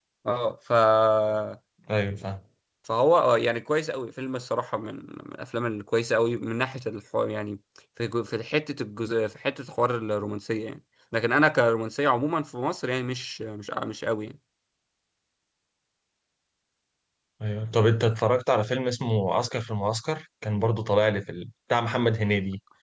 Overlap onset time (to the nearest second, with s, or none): none